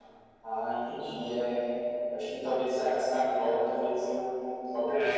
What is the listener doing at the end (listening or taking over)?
taking over